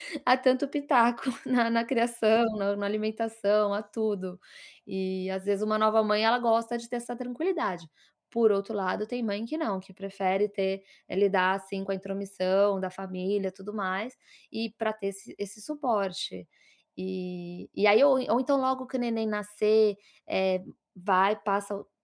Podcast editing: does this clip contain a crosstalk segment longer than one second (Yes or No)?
No